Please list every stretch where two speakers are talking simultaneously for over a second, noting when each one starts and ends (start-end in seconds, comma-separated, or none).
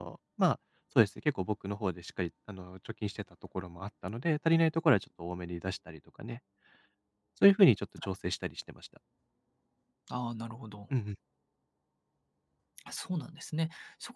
none